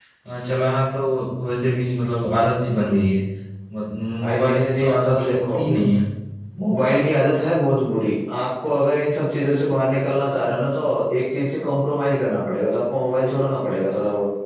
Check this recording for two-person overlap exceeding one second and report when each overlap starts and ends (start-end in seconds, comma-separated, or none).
4.2-5.6